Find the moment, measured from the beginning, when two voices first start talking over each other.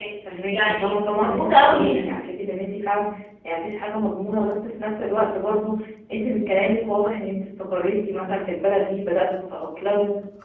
1 s

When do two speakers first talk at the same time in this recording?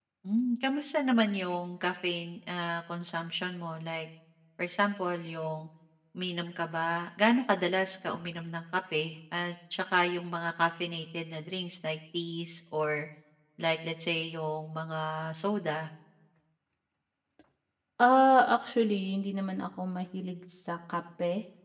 none

